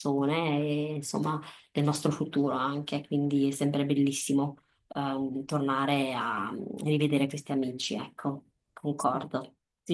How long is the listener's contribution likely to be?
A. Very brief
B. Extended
B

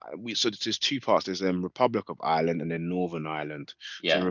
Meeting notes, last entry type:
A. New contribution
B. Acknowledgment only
B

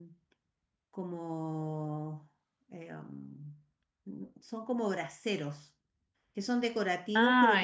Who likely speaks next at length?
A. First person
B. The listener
A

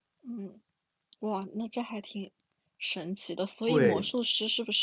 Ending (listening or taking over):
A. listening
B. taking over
A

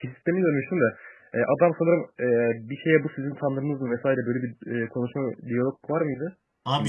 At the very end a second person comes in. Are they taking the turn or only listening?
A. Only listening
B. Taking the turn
B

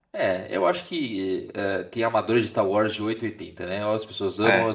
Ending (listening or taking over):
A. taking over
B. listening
B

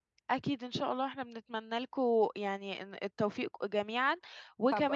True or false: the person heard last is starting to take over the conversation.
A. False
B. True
B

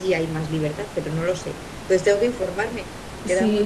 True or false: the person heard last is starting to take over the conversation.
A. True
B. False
A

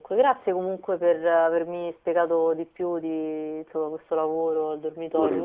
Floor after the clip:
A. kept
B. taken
A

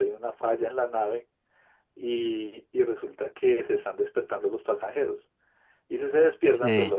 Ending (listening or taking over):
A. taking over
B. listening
B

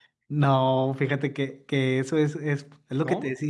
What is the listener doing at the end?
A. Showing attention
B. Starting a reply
A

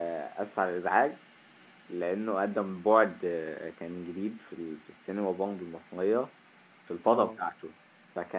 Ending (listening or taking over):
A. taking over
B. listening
B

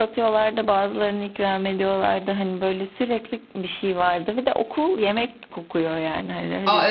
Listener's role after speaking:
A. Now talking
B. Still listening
A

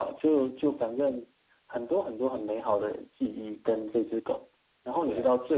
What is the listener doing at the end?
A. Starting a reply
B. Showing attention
B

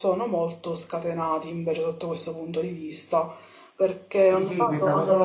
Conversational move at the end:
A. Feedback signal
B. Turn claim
B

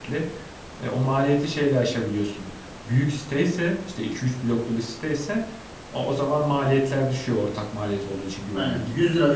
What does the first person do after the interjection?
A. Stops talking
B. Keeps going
A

